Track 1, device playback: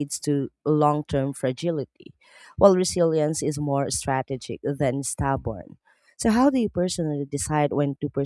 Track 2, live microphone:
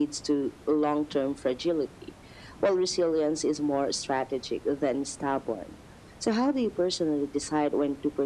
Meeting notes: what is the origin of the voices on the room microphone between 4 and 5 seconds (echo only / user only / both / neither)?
echo only